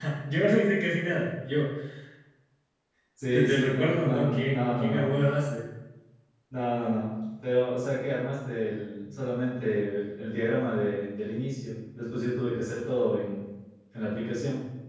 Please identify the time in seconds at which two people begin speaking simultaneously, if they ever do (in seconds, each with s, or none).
3.3 s